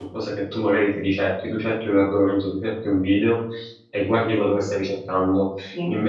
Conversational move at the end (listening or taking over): listening